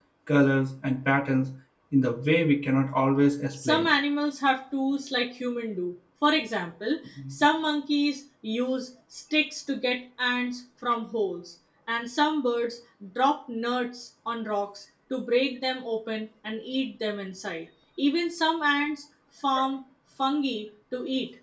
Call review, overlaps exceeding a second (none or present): none